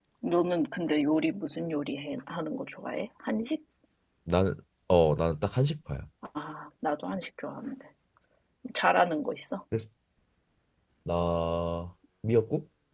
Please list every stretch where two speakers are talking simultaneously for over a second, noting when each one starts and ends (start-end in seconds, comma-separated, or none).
none